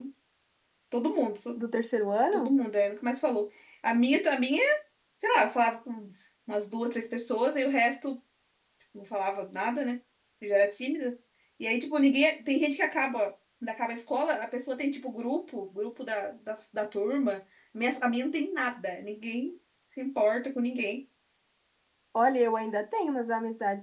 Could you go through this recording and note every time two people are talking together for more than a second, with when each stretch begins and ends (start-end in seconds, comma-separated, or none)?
none